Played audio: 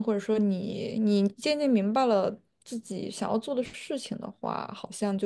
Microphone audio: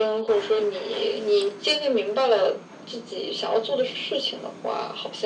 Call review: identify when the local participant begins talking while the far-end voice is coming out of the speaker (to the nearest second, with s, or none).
none